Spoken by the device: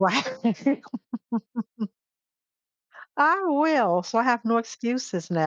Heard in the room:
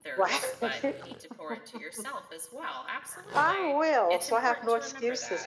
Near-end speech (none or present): present